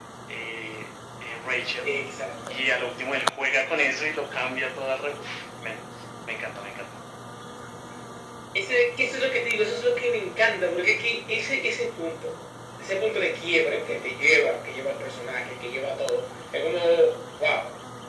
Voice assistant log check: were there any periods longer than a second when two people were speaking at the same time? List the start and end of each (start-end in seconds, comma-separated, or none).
none